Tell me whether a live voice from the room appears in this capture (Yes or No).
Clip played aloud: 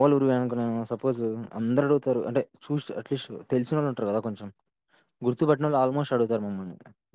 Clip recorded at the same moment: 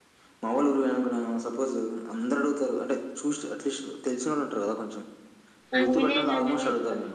Yes